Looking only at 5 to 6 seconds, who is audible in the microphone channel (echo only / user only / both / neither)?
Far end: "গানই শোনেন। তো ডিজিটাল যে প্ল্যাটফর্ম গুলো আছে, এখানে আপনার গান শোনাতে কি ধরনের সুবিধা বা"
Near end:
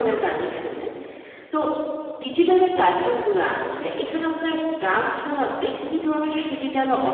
echo only